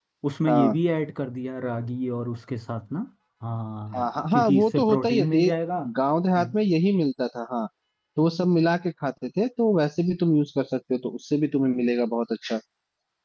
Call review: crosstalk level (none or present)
present